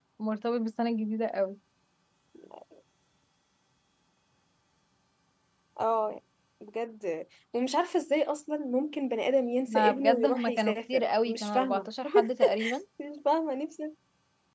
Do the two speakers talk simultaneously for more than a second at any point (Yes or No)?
Yes